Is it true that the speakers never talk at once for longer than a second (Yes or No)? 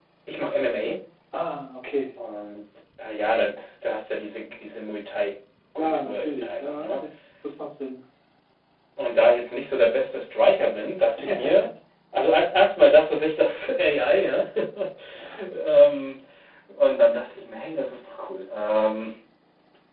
No